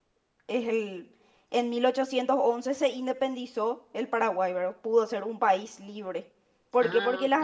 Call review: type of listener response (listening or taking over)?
listening